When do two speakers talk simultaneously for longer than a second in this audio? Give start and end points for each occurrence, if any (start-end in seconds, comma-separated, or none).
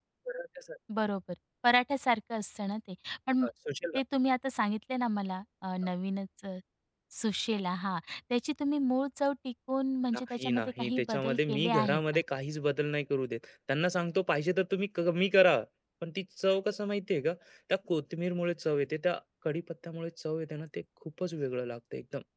10.3-12.2